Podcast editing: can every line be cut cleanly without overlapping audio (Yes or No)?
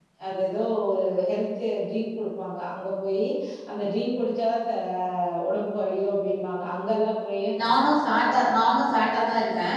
Yes